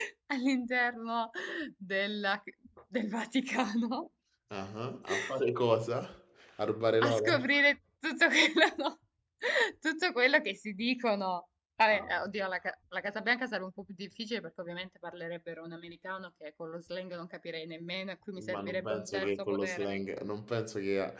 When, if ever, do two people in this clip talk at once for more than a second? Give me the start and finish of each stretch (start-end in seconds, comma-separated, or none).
18.4-19.9